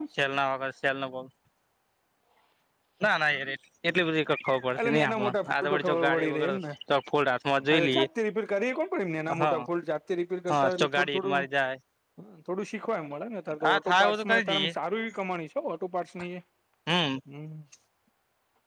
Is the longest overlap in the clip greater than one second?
Yes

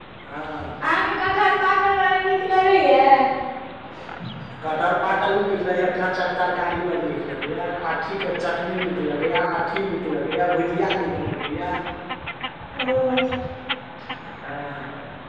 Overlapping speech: No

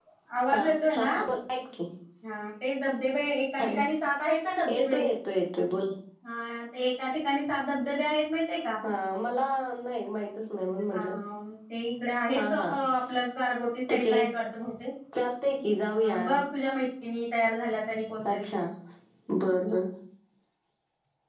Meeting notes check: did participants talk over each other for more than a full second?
No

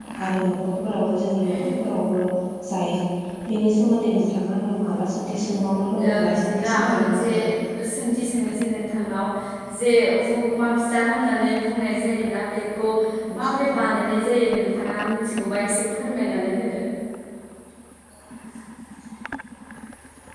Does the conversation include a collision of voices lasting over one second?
Yes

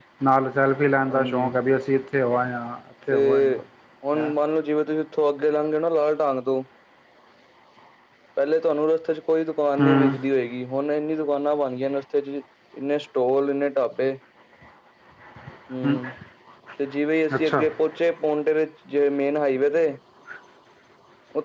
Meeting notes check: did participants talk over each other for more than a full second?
No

